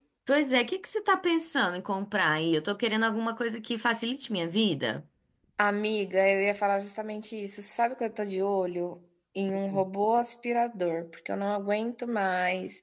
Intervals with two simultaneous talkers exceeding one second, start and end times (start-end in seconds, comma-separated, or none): none